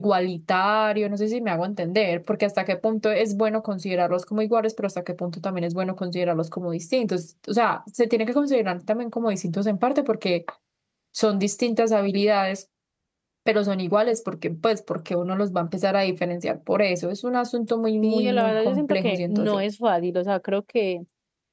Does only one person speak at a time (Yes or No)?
No